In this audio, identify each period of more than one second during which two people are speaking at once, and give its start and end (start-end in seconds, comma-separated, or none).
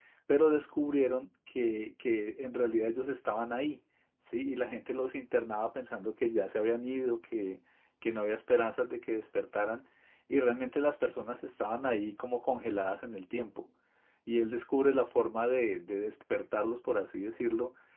none